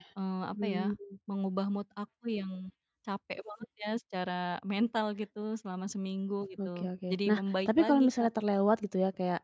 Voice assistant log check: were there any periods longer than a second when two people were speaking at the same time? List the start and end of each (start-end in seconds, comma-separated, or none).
6.7-8.3